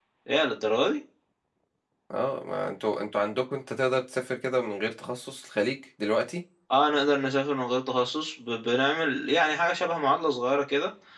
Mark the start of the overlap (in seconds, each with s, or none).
none